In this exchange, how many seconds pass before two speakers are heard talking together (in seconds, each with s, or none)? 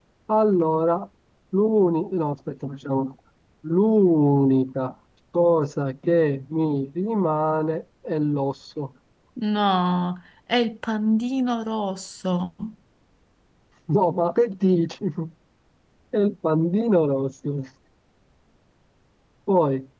none